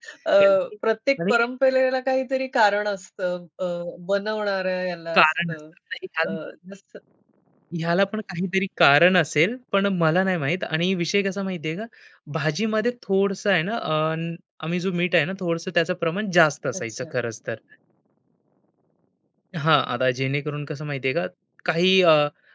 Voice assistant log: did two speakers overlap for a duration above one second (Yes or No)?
No